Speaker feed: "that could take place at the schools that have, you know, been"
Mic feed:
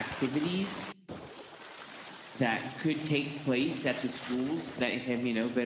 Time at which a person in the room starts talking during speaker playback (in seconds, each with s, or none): none